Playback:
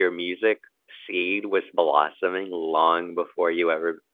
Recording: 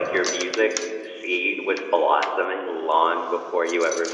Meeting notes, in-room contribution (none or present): none